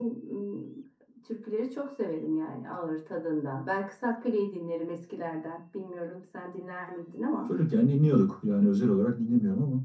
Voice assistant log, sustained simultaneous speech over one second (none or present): none